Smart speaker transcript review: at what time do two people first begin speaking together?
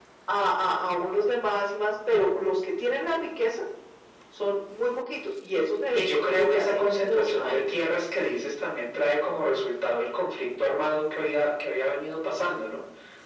5.9 s

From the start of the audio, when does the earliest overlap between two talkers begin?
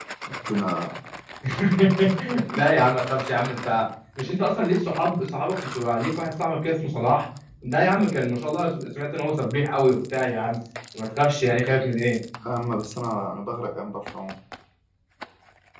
none

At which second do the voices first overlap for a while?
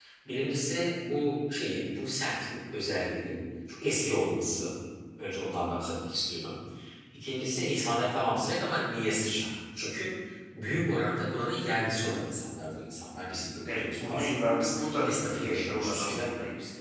13.6 s

